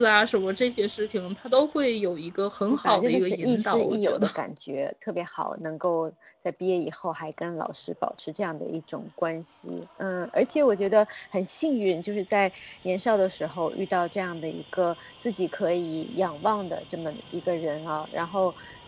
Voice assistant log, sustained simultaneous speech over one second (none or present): present